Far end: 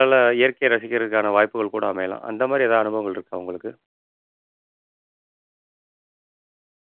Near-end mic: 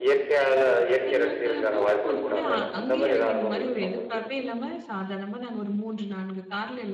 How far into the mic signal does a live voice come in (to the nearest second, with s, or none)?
1 s